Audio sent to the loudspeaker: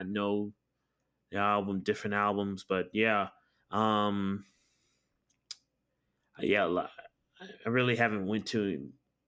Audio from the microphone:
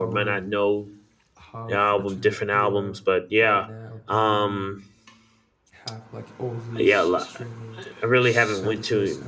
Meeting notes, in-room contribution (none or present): present